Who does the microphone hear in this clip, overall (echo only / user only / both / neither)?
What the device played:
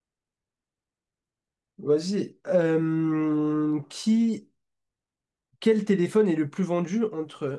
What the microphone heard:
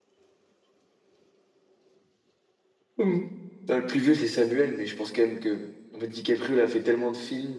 user only